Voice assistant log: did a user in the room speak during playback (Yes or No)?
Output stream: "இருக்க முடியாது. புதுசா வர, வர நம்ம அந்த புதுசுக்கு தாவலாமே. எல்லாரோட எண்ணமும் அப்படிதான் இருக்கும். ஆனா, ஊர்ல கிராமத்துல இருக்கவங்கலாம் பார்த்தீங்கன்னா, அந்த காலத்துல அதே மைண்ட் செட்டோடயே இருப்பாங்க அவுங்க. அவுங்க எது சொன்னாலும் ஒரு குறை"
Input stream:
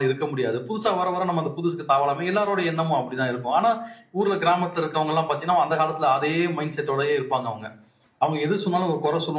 No